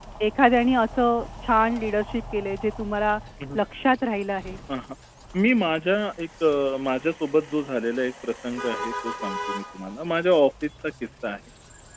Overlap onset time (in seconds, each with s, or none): none